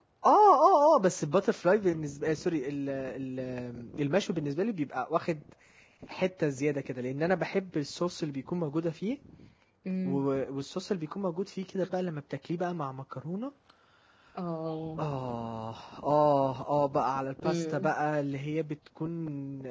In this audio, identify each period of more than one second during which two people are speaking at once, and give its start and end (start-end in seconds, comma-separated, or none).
none